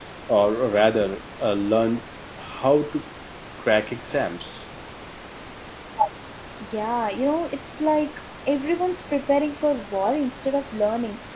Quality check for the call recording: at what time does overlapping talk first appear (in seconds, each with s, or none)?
none